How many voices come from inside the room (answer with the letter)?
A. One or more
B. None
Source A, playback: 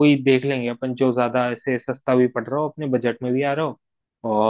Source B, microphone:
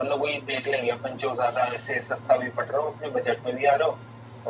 B